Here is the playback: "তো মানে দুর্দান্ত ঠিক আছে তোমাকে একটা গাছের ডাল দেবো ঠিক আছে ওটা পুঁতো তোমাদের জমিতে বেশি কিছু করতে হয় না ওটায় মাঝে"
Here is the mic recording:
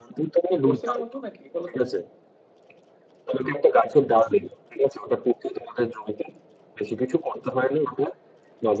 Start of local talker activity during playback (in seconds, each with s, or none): 0.5 s